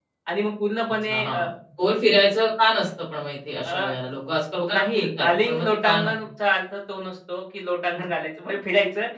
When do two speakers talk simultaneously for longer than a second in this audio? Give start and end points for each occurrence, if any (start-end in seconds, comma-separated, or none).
4.7-6.1